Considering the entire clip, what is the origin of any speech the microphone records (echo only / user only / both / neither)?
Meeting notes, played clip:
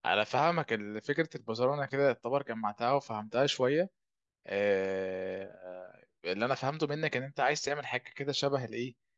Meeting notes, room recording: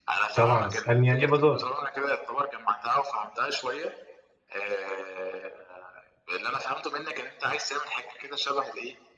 both